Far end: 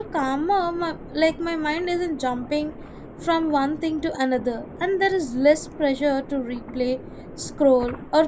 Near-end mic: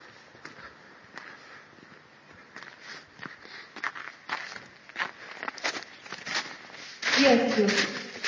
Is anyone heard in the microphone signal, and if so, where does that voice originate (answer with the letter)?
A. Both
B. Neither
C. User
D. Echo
C